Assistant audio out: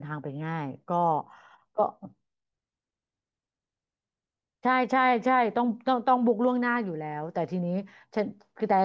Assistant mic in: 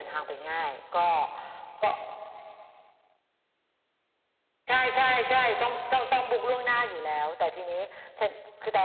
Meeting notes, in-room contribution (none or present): none